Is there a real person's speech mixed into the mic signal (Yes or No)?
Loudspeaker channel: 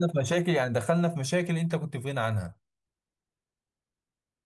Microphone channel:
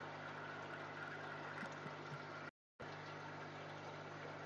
No